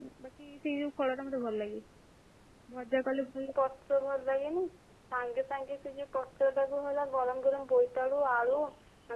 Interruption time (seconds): none

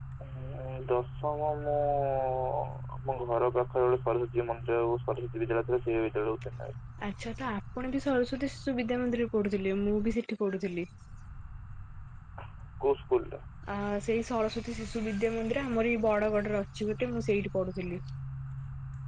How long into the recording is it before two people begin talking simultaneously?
none

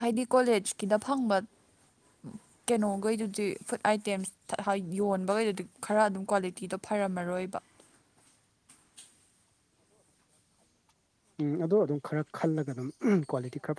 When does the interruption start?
none

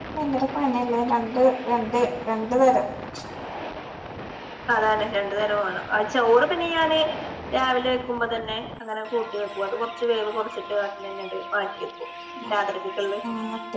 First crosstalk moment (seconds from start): none

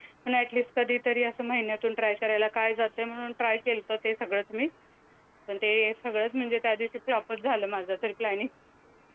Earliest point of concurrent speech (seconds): none

